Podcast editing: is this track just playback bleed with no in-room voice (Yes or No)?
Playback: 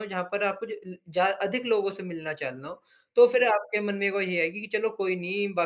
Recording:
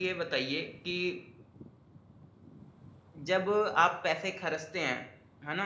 No